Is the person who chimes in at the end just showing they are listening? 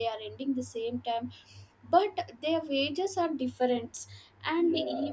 Yes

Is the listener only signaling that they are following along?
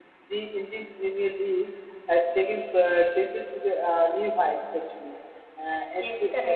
No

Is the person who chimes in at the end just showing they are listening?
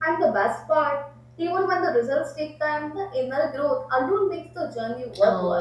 No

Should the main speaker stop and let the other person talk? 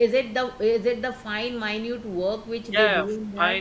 Yes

